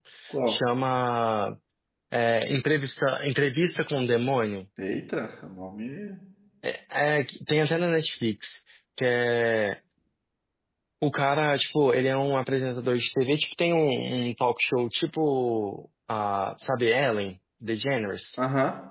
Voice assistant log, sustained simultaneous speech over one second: none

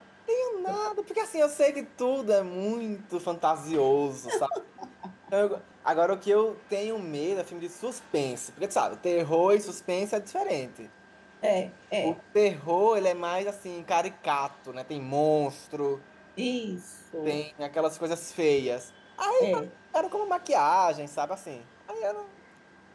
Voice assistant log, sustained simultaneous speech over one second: none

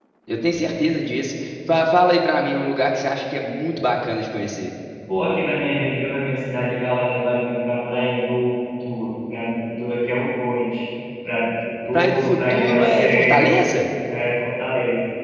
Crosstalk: present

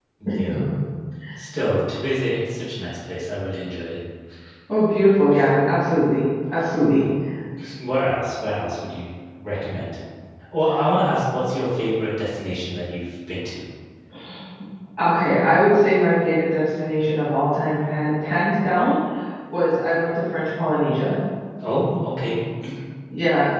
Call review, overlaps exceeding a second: none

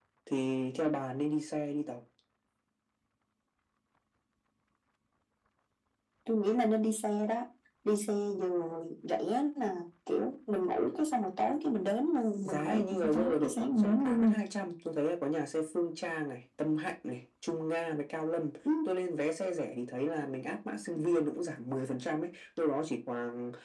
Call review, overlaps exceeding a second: present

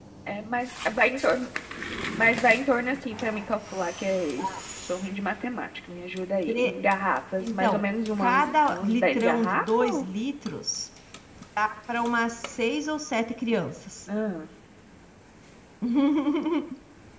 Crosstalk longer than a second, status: present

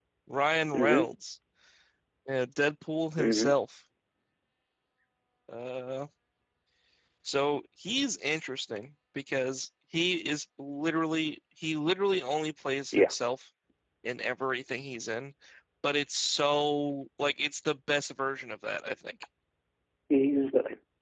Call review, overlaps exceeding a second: none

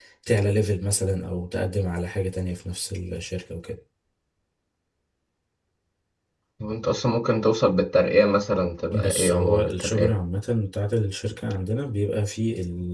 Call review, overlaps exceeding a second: present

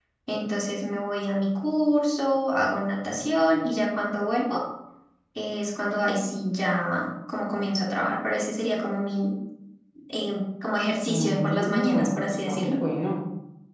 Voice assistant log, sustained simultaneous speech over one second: present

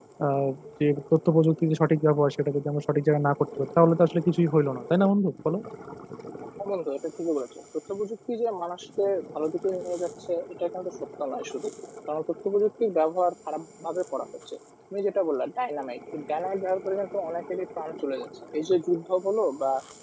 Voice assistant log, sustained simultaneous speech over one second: none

